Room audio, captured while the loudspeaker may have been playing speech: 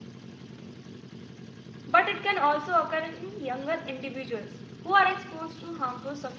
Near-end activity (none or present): present